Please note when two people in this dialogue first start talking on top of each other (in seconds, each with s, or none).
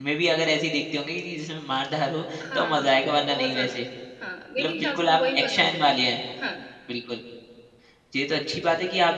2.5 s